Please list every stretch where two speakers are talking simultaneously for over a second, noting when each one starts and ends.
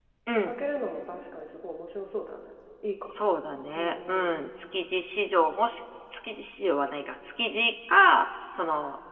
none

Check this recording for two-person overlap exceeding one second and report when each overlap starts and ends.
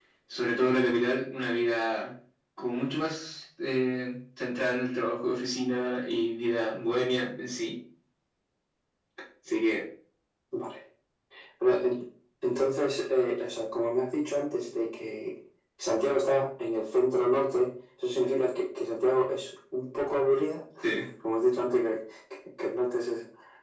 none

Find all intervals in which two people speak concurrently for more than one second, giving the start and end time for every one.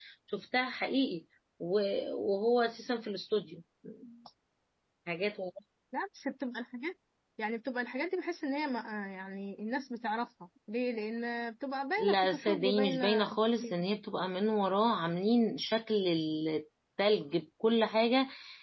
12.0-13.2

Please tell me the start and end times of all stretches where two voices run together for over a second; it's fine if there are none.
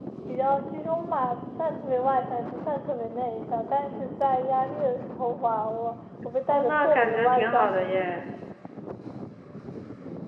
6.5-7.7

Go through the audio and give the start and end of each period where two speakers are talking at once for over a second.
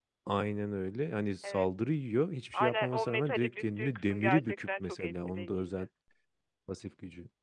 2.5-5.9

